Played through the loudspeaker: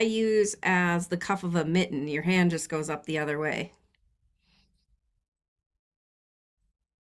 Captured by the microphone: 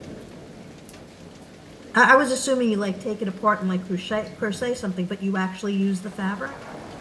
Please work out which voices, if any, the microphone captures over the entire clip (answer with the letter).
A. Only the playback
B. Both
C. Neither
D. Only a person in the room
D